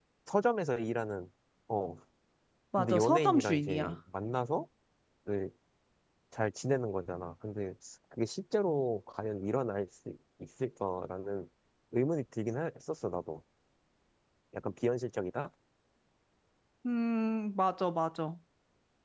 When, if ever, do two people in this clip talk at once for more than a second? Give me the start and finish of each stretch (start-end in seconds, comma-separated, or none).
2.8-4.0